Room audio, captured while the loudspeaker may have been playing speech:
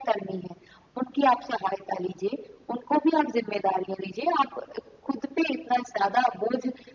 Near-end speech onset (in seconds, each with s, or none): none